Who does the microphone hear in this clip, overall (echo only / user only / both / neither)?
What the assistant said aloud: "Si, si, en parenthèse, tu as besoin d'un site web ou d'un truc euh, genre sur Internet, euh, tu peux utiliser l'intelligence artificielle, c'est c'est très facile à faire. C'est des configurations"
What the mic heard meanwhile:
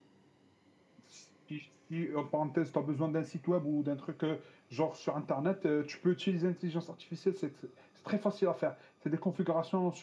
echo only